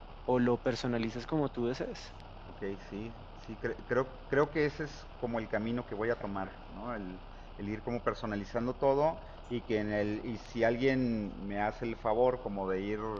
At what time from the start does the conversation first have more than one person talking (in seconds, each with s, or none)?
none